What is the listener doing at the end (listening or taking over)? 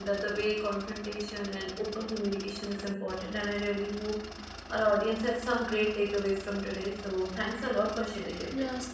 taking over